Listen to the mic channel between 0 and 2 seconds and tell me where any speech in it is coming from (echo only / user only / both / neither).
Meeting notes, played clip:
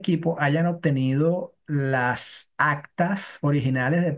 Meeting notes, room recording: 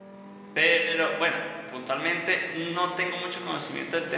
user only